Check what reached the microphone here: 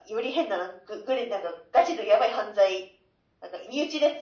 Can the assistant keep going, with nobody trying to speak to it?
Yes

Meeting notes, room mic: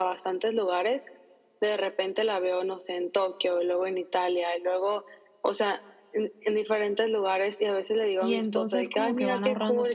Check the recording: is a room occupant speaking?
Yes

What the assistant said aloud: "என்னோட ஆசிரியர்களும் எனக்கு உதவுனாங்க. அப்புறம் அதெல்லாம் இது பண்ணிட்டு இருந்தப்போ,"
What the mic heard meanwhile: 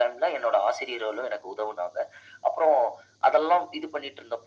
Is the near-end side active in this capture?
No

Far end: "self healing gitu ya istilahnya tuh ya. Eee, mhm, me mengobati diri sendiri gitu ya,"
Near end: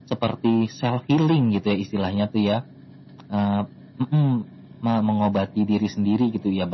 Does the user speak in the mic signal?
No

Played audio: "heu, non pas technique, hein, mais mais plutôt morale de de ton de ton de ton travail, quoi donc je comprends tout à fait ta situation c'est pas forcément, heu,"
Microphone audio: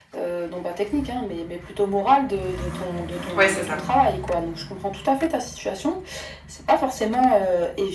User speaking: Yes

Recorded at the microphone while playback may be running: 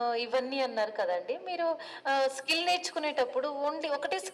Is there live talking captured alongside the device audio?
No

